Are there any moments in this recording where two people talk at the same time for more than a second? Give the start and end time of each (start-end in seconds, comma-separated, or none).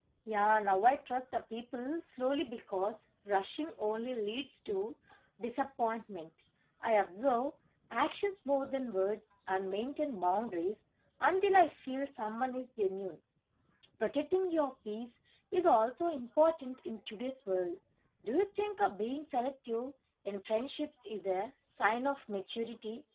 none